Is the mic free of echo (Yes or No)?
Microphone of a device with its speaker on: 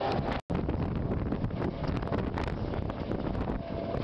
Yes